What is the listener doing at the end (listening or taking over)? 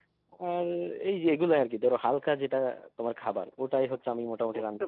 taking over